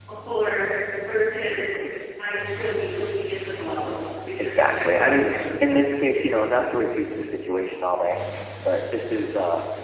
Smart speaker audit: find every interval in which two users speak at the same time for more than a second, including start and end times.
4.4-6.7

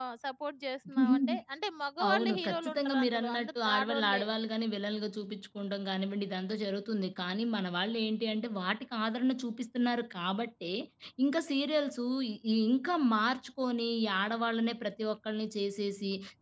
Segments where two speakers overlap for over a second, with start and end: 2.1-4.2

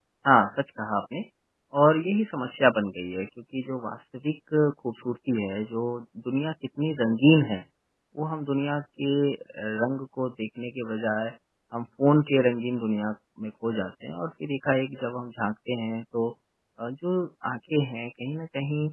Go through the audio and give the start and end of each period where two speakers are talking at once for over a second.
none

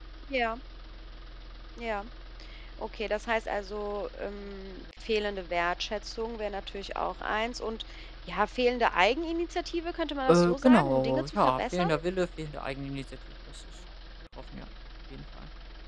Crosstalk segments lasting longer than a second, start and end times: 10.3-11.9

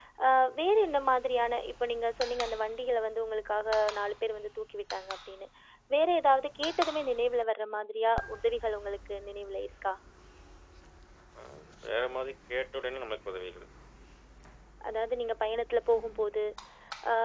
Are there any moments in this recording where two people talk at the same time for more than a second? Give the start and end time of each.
none

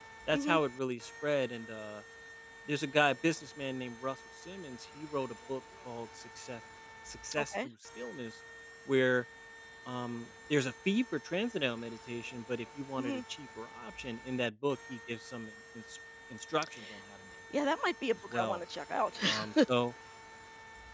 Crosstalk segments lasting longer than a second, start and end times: none

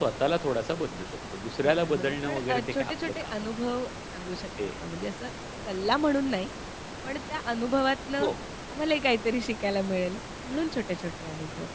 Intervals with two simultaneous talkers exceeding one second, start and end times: 1.6-3.5

